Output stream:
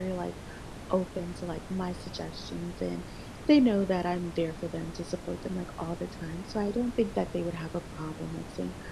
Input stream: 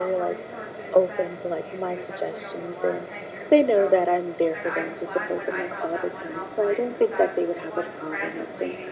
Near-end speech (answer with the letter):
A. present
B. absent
A